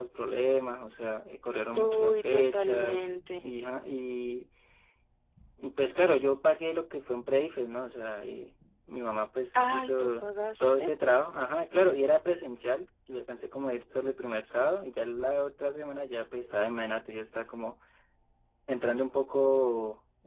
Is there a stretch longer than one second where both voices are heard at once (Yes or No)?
Yes